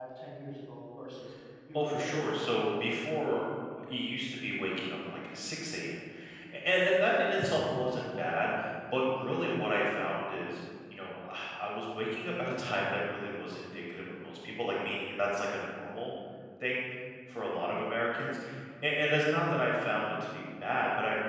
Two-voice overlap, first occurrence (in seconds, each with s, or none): 1.7 s